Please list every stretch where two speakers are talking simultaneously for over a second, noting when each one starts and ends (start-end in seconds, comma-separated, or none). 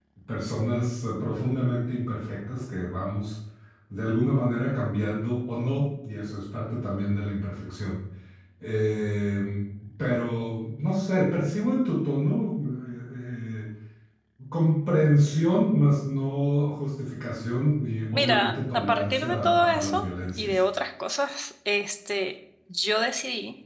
18.1-20.6